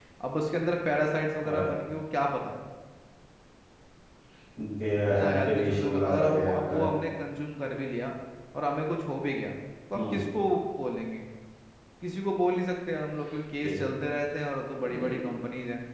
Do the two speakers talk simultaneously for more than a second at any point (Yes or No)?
Yes